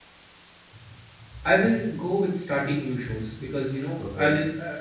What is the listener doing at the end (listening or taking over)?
listening